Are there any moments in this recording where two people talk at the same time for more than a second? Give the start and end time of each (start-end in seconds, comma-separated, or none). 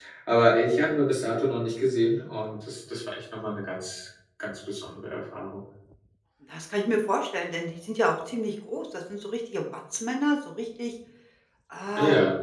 none